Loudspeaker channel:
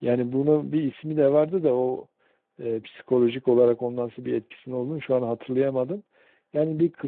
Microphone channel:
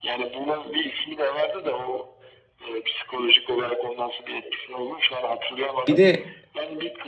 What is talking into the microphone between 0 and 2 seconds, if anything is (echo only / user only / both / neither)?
echo only